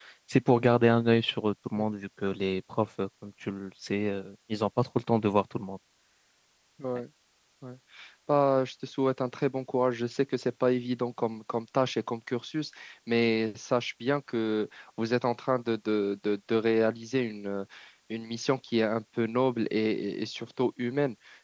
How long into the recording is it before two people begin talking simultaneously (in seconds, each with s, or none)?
none